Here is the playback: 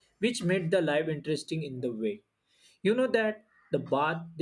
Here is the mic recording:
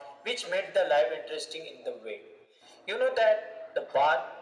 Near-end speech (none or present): none